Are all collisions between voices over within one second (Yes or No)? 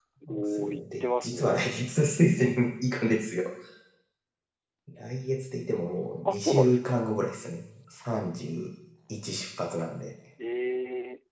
No